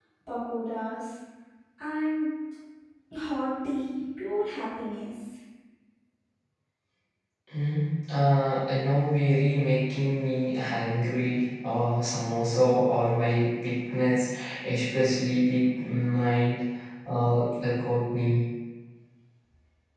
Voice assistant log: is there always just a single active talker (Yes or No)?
Yes